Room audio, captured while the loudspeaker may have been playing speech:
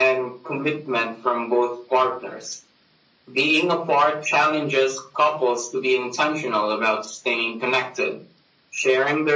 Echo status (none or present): present